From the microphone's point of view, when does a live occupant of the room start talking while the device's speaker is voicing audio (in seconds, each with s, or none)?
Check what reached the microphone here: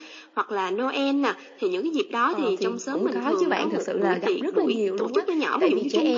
2.3 s